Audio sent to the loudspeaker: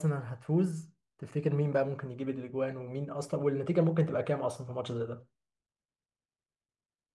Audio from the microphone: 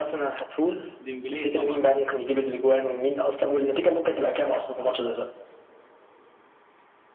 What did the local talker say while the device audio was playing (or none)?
ديمبلي طبعا